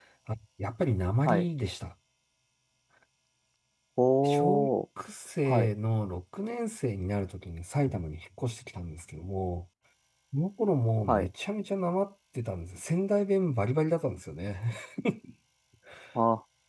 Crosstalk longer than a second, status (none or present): none